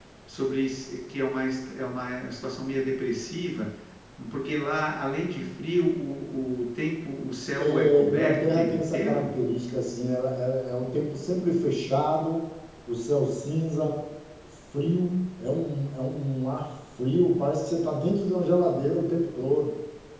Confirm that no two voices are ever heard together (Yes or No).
No